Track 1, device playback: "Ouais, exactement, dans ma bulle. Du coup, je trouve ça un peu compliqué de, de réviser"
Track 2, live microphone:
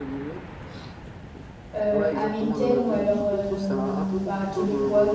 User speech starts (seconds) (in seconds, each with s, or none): 1.7 s